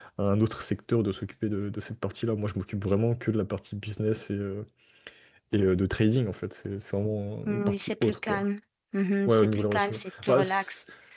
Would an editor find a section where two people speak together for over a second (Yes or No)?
Yes